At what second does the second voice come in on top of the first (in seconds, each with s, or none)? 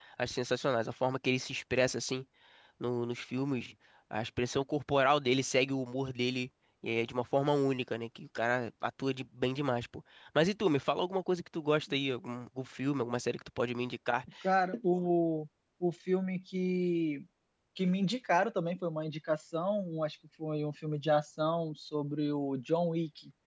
none